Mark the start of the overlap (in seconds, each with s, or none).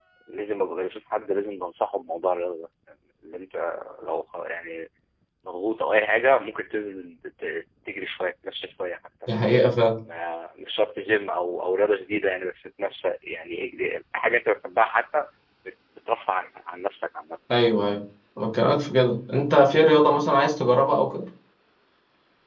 none